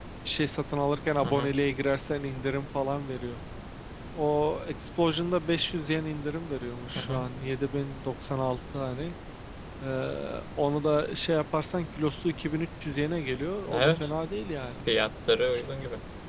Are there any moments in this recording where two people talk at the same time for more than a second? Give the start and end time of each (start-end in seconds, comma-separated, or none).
none